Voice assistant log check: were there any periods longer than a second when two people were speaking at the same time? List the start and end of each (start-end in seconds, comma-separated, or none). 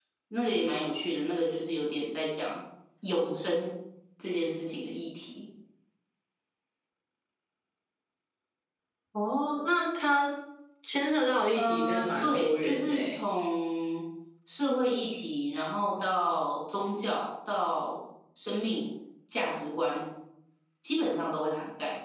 11.6-13.2